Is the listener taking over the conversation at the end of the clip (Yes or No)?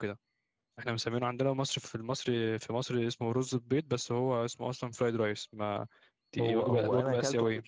Yes